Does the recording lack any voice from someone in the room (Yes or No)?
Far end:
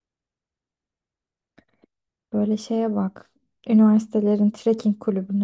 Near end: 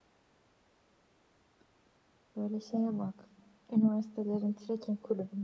Yes